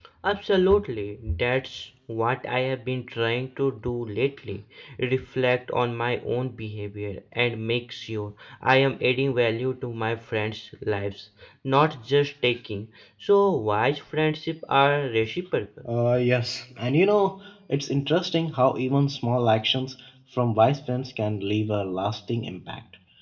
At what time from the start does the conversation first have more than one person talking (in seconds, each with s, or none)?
none